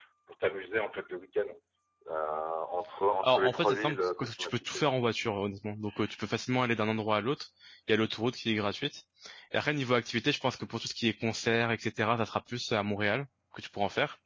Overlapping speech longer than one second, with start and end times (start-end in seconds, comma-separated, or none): 3.2-4.8